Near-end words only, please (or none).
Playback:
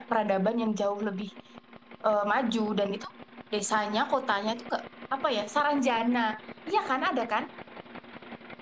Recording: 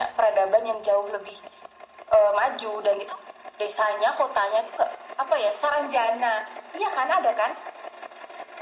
none